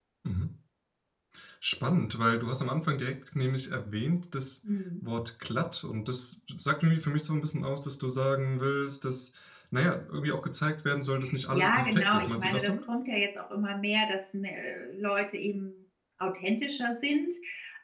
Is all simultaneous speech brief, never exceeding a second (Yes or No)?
No